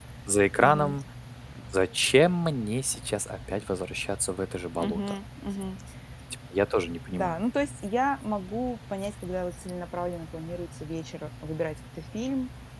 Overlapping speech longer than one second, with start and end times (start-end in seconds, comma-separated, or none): none